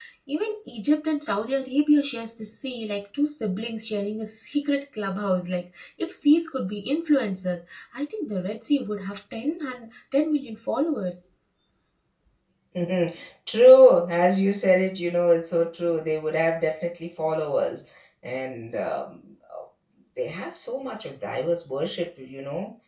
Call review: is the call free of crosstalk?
Yes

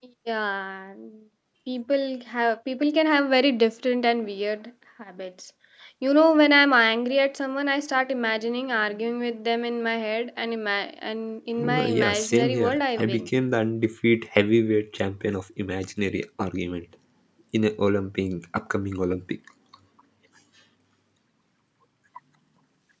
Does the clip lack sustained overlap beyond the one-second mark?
No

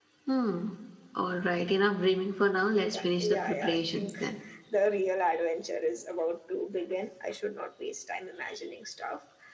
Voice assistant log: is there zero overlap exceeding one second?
No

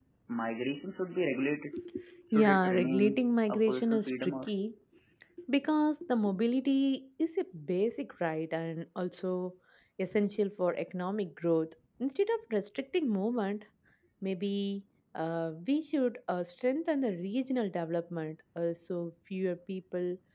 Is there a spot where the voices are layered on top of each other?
Yes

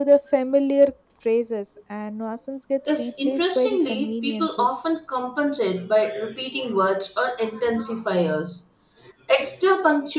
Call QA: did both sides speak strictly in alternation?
No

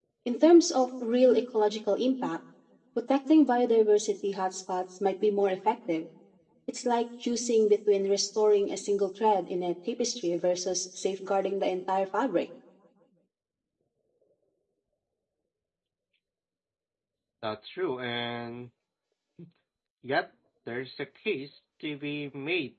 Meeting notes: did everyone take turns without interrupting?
Yes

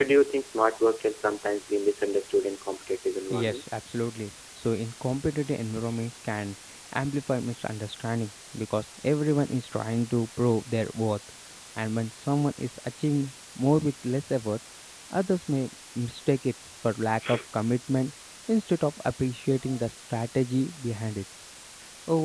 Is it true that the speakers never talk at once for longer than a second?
Yes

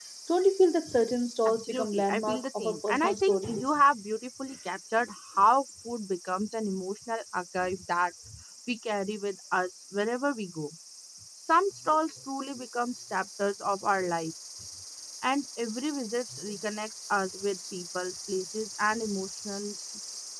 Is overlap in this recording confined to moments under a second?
No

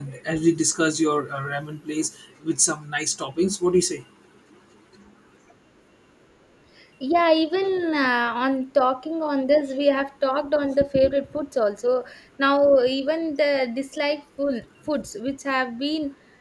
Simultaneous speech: No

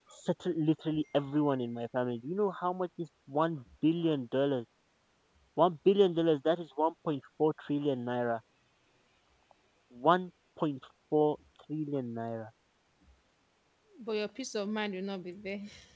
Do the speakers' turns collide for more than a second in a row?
No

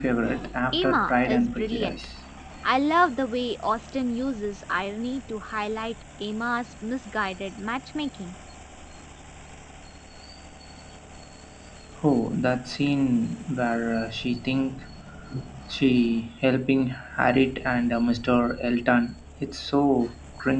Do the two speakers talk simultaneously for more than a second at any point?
Yes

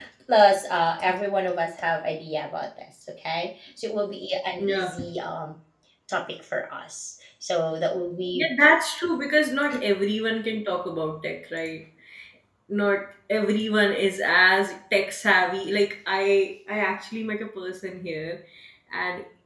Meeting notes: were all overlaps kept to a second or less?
Yes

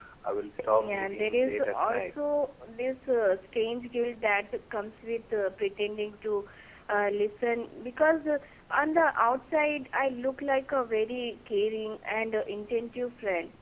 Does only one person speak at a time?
No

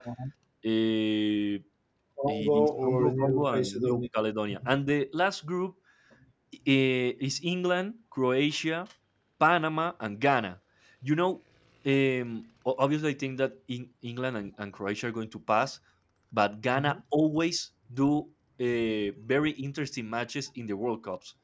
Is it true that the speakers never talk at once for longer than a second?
No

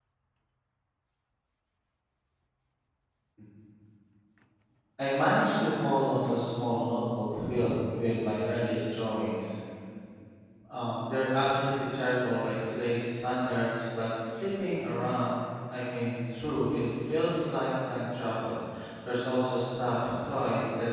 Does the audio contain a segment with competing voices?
No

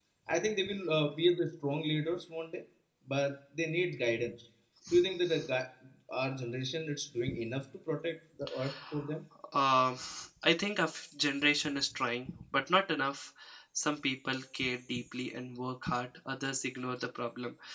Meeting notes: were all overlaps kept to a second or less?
Yes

